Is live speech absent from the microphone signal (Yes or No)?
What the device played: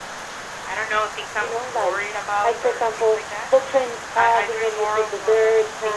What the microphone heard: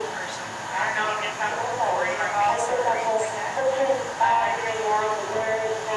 No